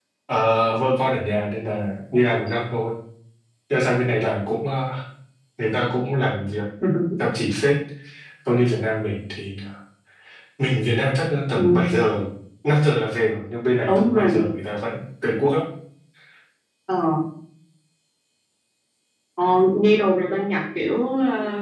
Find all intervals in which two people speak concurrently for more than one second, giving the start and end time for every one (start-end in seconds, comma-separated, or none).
none